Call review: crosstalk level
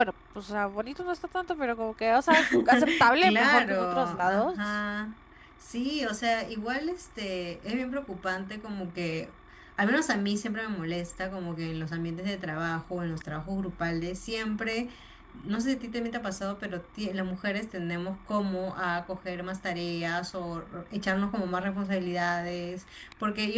present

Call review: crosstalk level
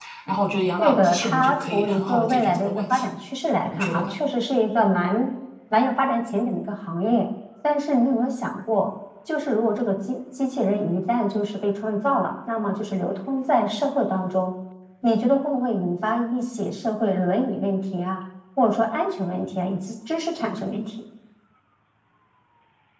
present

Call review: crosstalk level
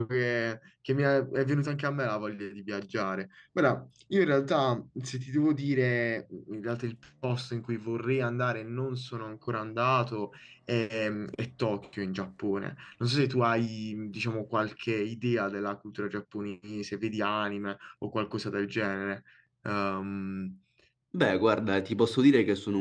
none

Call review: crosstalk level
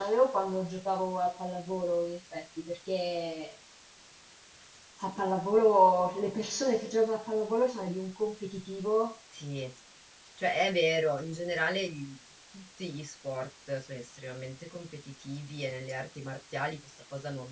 none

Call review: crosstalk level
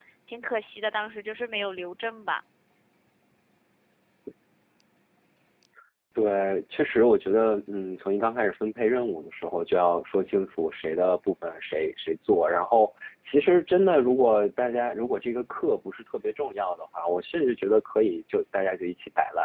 none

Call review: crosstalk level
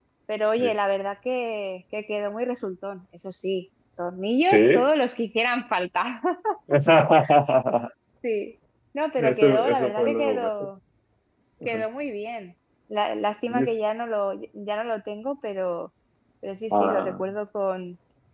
present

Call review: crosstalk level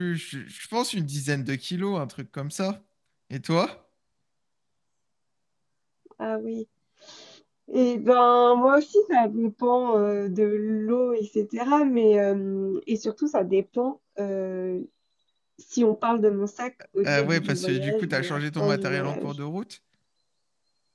present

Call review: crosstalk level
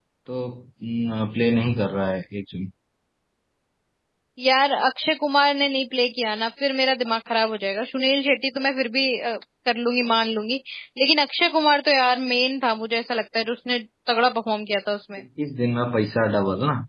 none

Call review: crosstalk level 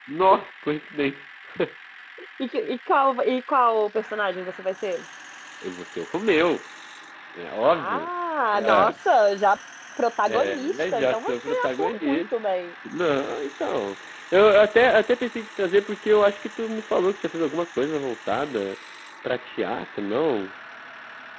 present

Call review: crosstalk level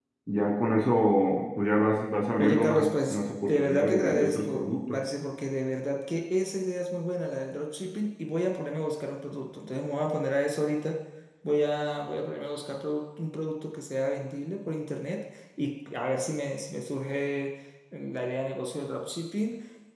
present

